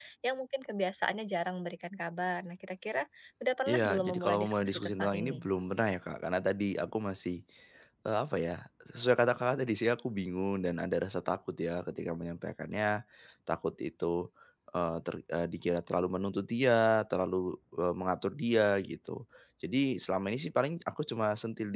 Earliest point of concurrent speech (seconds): 3.7 s

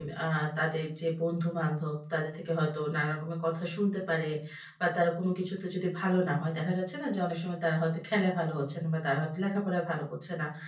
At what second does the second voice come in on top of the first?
none

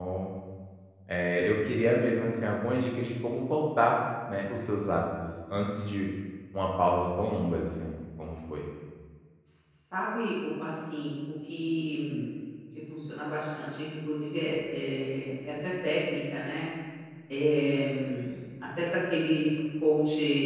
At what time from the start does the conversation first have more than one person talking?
none

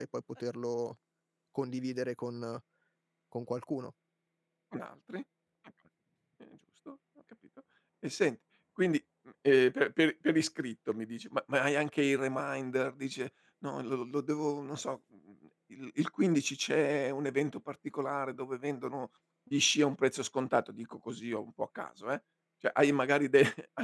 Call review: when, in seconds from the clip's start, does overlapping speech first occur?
none

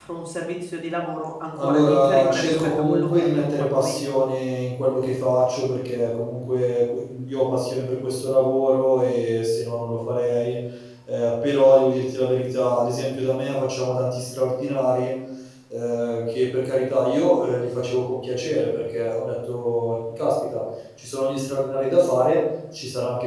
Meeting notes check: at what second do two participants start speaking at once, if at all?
1.6 s

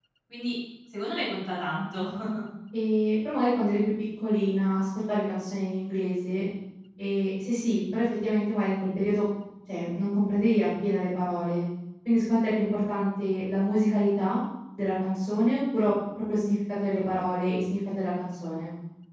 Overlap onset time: none

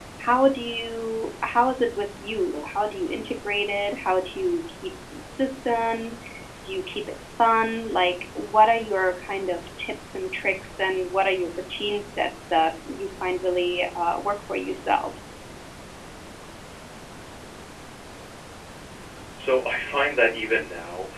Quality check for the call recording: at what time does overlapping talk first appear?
none

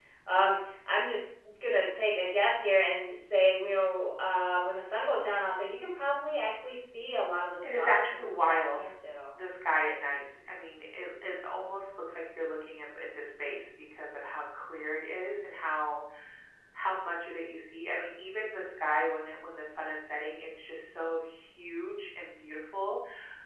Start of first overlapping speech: 7.6 s

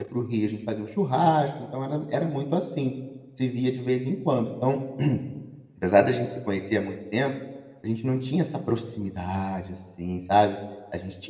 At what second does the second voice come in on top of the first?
none

